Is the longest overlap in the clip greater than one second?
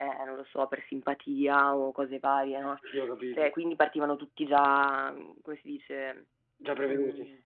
No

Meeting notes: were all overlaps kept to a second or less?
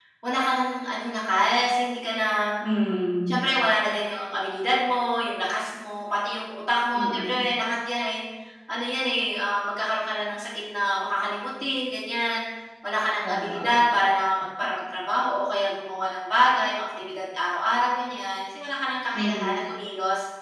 Yes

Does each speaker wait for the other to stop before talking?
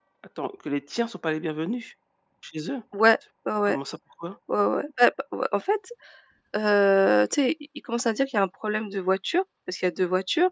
Yes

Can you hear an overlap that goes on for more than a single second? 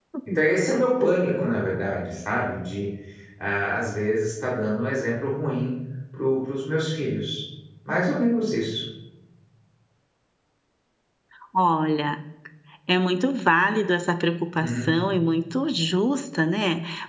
No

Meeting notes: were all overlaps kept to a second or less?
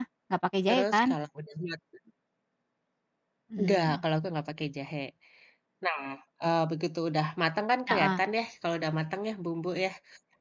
Yes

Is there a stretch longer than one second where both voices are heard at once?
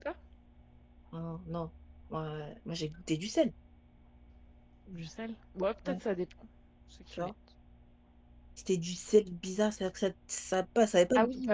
No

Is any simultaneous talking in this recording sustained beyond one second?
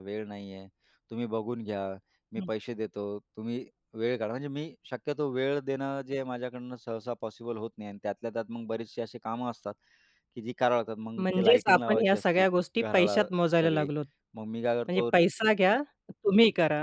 Yes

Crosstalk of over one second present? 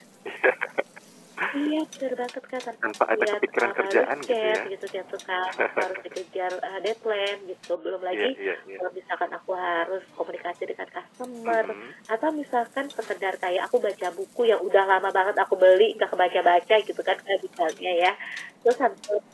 Yes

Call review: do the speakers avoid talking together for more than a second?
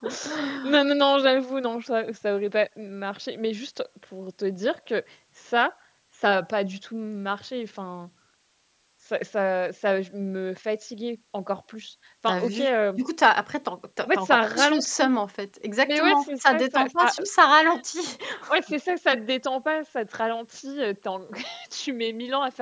No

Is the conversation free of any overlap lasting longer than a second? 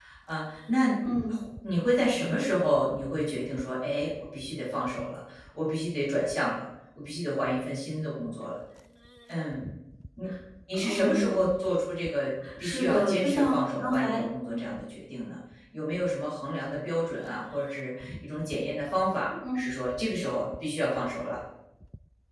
No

